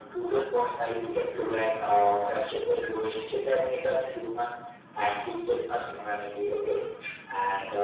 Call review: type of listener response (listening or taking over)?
listening